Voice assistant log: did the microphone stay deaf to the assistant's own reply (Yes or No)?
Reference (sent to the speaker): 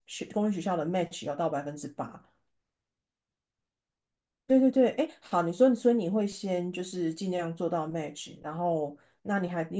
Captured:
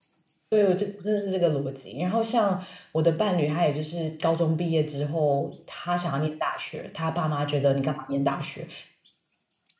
Yes